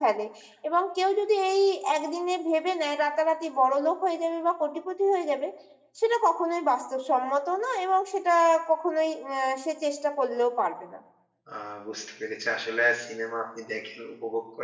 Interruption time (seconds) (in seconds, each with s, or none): none